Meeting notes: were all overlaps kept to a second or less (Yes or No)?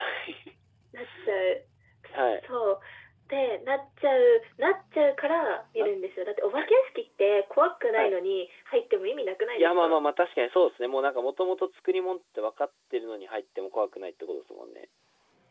Yes